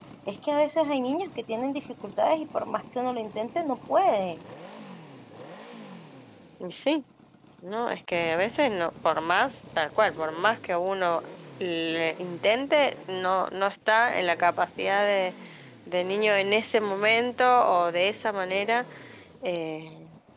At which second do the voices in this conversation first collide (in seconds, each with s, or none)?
none